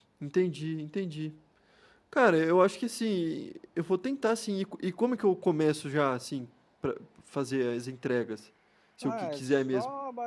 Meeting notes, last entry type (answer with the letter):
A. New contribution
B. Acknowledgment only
A